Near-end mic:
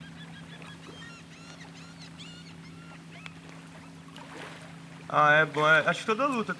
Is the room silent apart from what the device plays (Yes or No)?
No